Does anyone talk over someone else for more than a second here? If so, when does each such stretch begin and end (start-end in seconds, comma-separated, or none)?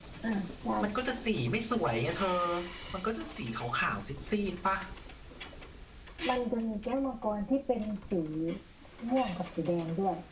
none